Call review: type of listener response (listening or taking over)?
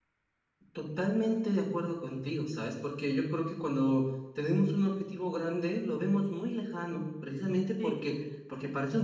listening